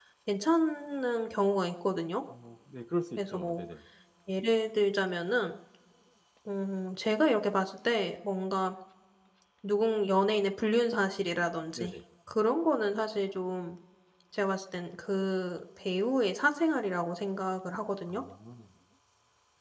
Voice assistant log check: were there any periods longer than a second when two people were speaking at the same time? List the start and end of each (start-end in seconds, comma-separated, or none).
none